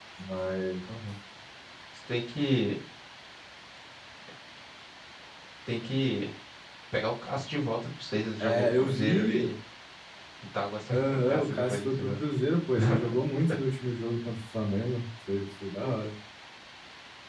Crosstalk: present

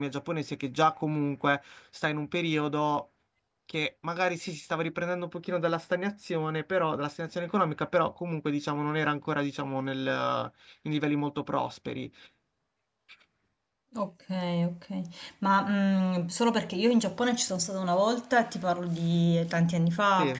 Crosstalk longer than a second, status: none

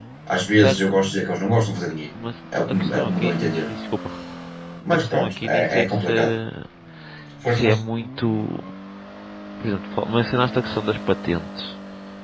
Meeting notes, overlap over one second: present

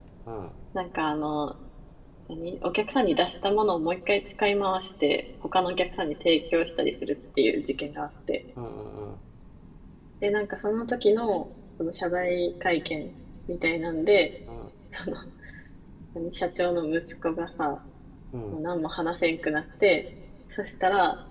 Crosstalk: none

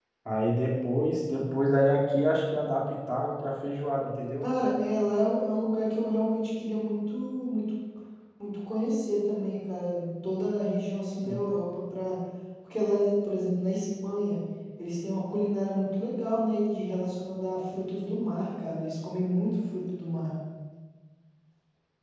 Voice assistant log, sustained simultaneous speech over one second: none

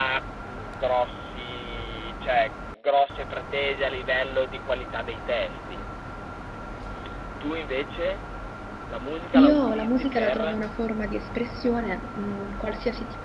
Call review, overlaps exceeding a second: present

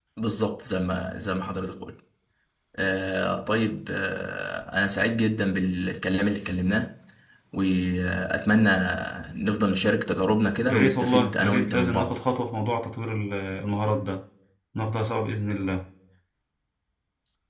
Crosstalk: present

